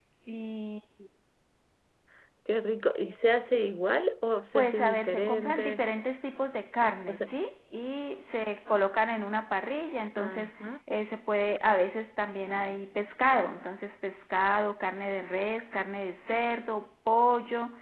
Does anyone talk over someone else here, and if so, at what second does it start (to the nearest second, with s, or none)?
5 s